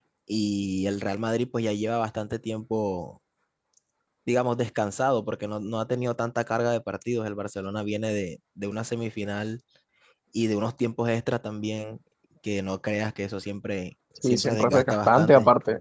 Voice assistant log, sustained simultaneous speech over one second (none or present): present